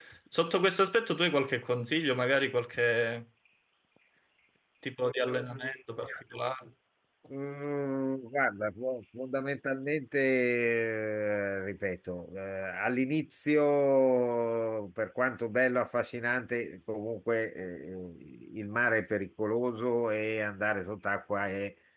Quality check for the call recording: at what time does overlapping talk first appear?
none

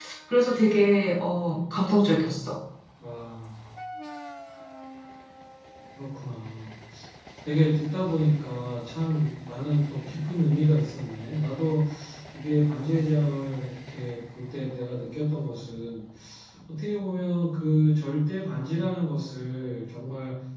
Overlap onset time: none

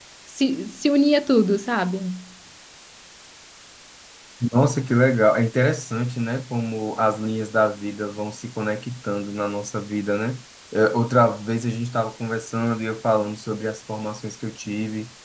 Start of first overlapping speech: none

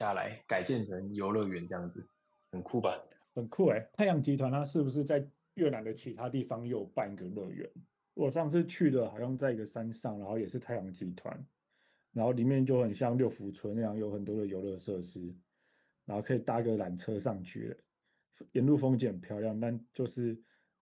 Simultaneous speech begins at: none

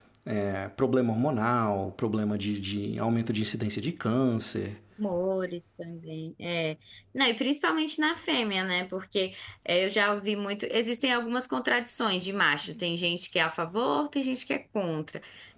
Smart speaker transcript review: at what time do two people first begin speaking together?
none

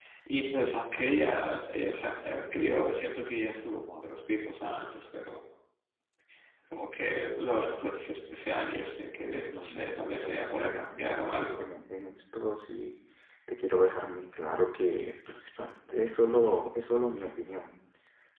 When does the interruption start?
9.5 s

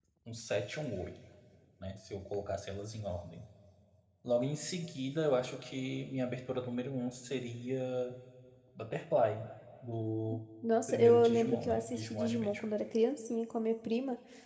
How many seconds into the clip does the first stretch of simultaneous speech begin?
10.9 s

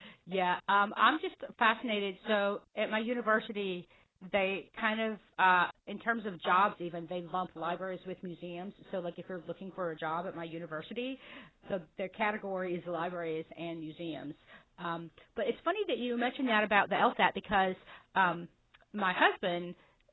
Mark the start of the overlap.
none

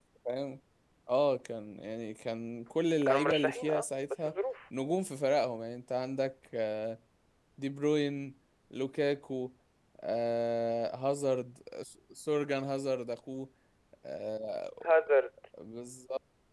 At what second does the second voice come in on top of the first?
3.0 s

